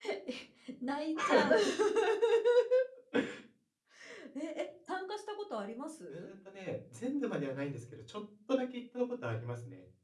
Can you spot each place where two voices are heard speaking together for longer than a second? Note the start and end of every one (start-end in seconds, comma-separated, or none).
none